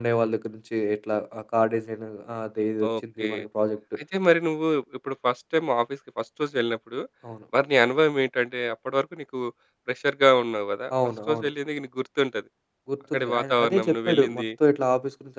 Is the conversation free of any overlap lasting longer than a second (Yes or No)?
No